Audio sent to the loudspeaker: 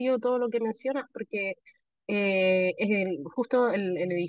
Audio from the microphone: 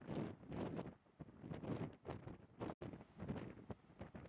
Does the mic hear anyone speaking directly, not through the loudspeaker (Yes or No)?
No